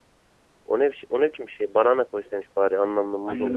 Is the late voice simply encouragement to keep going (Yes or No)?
No